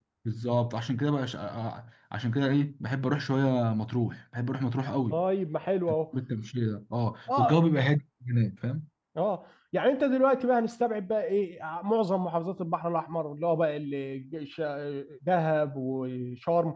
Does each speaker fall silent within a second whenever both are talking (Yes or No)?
Yes